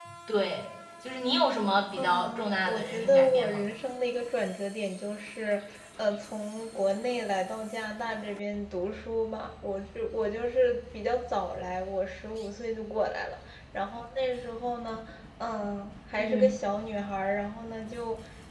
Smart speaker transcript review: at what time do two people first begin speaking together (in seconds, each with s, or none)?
2.0 s